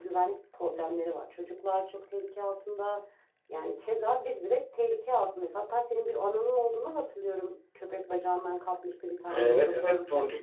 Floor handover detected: Yes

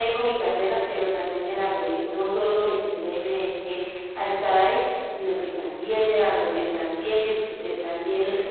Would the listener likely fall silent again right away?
Yes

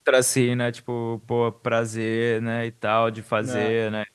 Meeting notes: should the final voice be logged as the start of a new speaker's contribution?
No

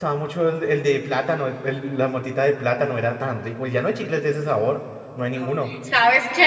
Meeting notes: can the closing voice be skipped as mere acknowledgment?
No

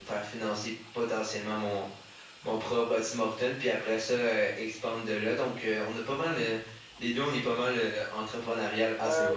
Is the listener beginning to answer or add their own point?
Yes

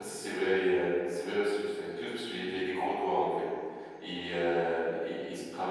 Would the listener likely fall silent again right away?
Yes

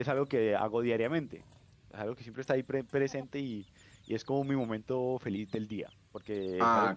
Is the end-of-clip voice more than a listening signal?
No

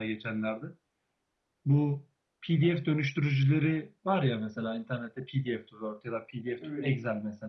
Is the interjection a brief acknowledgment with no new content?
Yes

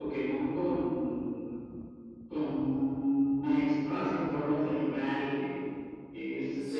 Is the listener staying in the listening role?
No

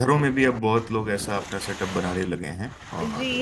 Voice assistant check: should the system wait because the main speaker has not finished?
No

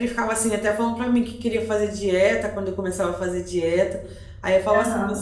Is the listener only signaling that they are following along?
Yes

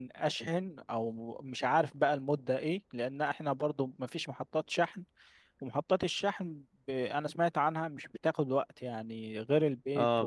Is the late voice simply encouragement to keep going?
No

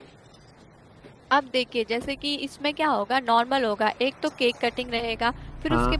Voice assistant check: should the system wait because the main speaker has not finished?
Yes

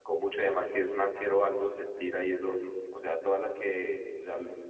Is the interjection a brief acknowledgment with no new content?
Yes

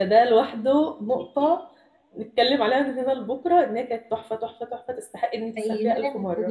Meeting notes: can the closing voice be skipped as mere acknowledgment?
No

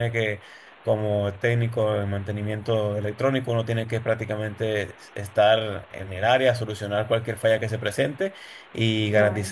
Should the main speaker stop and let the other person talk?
No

